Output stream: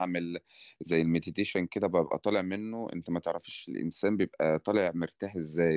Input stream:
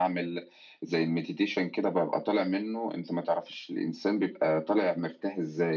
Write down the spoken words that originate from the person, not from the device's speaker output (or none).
none